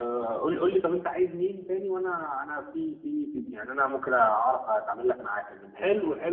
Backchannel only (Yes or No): No